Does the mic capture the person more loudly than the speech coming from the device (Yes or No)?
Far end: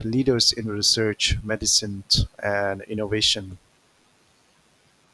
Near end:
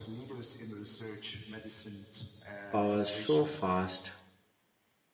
Yes